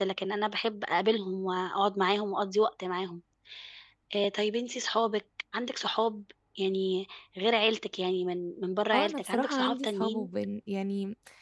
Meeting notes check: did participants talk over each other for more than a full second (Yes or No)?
Yes